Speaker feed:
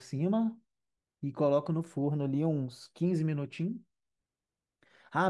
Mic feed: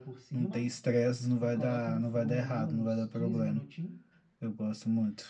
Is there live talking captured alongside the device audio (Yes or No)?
Yes